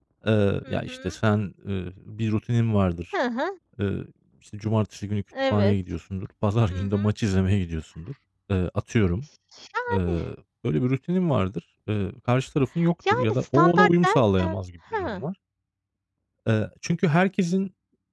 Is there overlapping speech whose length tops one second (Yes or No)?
Yes